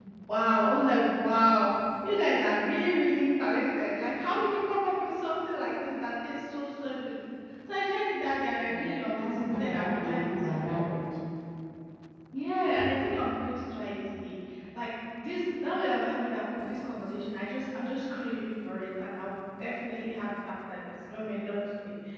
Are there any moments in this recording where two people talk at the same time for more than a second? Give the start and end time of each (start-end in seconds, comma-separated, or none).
8.6-10.3